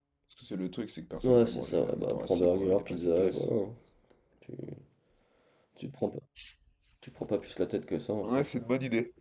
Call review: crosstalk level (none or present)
present